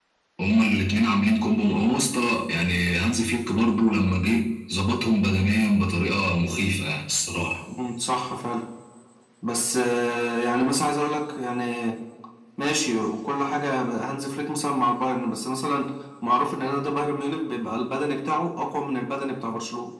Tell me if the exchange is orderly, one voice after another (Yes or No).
Yes